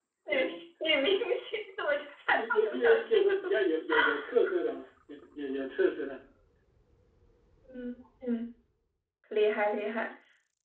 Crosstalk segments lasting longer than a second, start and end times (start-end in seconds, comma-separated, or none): 2.3-3.5